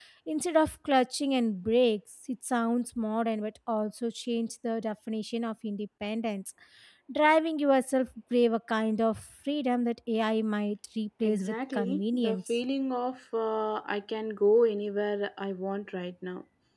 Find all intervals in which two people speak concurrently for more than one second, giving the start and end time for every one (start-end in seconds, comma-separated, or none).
11.2-12.5